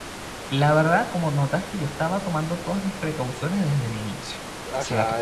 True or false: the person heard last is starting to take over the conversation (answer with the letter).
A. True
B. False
A